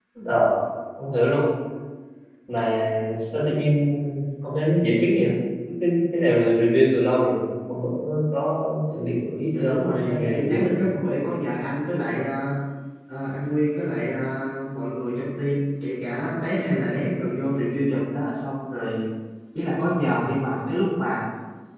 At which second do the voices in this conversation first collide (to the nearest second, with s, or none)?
10 s